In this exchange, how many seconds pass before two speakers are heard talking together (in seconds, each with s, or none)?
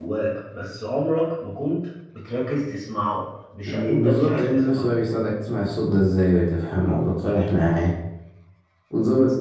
3.6 s